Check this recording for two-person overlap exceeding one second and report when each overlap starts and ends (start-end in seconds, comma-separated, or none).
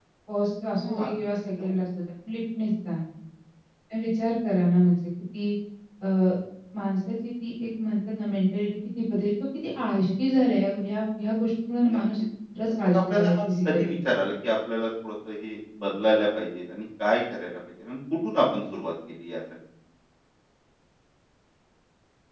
12.7-14.0